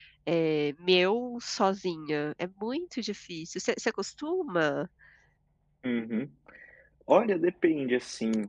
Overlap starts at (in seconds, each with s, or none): none